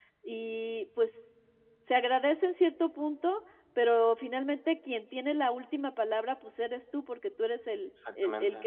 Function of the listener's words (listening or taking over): listening